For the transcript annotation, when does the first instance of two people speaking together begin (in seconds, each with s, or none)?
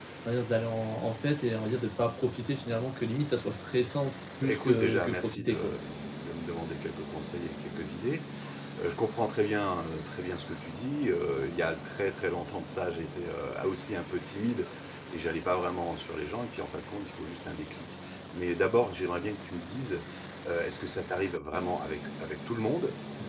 4.4 s